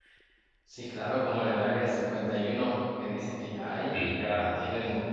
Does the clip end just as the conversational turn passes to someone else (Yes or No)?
No